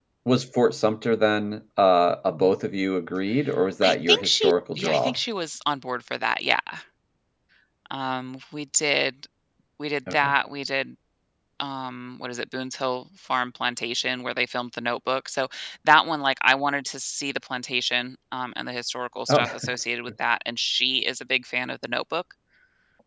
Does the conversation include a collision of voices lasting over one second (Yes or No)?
Yes